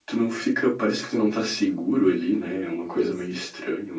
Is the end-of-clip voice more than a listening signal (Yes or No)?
No